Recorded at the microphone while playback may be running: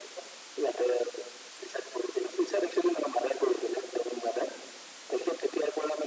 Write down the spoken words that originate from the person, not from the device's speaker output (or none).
none